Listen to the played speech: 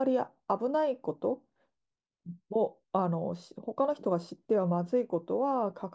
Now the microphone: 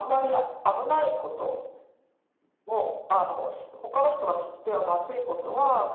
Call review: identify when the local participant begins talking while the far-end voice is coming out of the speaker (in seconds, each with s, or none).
none